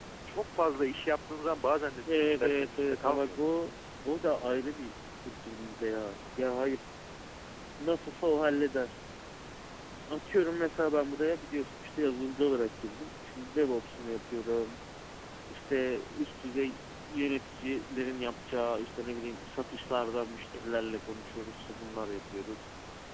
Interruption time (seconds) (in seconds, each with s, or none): 2.1 s